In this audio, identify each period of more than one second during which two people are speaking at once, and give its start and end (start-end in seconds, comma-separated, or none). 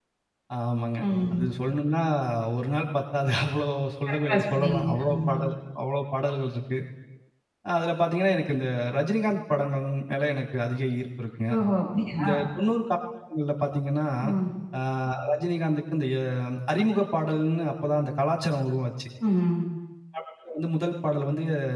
4.1-5.3